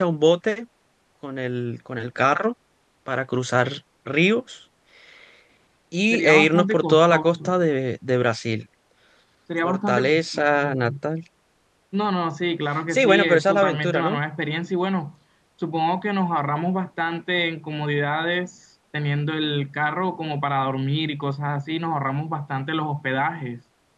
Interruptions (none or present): present